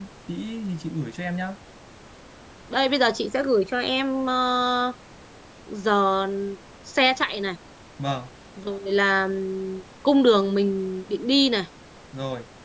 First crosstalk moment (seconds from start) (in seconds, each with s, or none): none